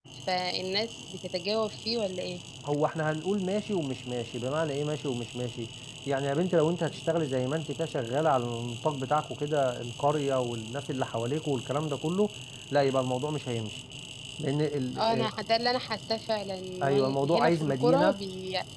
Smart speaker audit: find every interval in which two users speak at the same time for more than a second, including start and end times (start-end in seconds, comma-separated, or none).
16.8-18.2